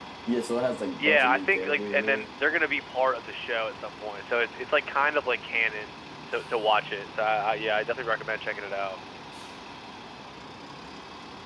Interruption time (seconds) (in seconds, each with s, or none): 1.0 s